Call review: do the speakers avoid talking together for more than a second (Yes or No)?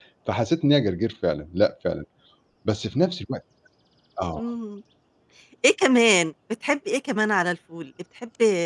Yes